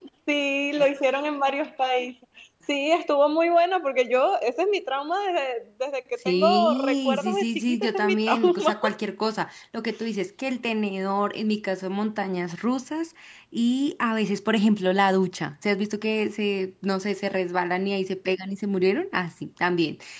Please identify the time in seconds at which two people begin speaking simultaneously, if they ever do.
6.2 s

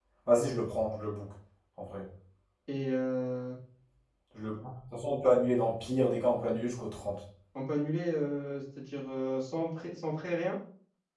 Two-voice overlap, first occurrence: none

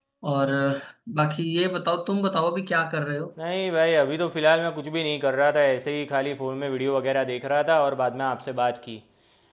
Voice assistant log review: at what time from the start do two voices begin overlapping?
none

